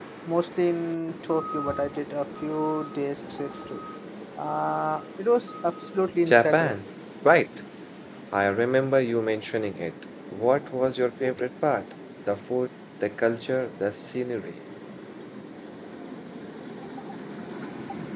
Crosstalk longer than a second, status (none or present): none